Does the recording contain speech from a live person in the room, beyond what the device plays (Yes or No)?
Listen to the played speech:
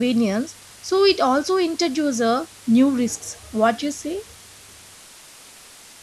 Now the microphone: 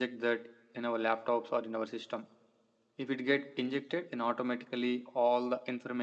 Yes